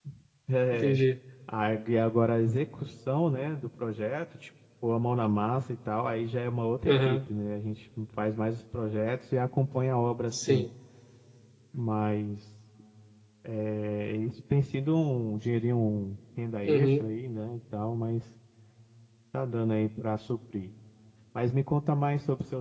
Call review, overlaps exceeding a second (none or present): none